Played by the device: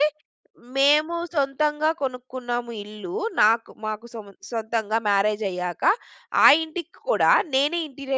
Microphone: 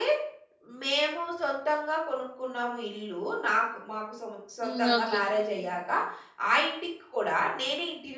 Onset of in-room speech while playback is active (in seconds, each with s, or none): 4.6 s